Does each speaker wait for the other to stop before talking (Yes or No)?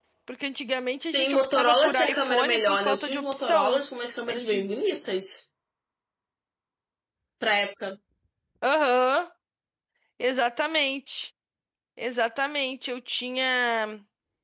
No